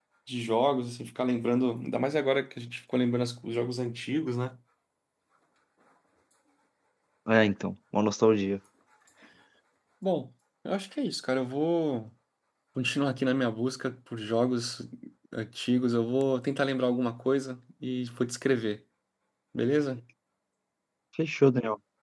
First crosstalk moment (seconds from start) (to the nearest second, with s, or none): none